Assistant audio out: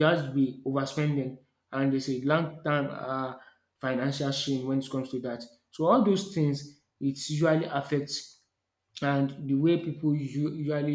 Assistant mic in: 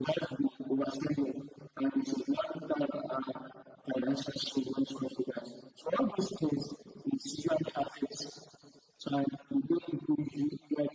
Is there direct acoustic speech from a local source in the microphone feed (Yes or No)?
No